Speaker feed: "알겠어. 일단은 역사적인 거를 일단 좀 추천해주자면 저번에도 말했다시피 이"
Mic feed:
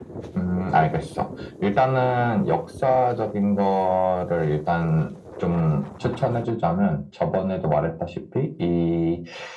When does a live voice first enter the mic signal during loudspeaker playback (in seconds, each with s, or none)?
none